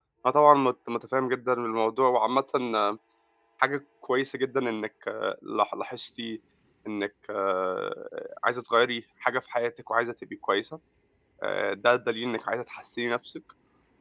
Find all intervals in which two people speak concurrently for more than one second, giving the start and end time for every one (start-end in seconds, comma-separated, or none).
none